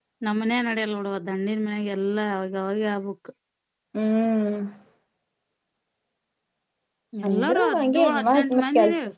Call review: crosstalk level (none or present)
present